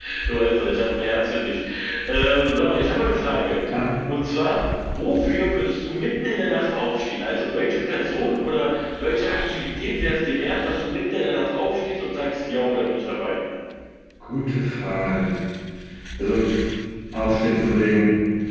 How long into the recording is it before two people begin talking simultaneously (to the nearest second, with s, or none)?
none